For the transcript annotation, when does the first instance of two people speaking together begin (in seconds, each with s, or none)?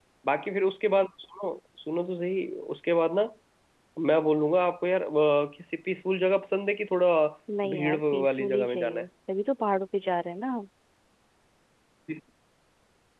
7.7 s